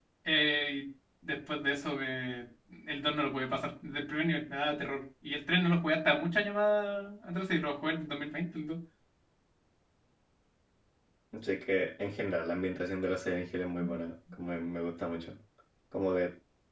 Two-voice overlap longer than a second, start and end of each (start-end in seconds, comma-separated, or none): none